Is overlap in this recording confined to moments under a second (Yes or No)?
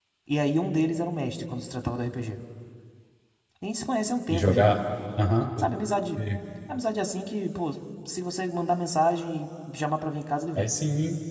Yes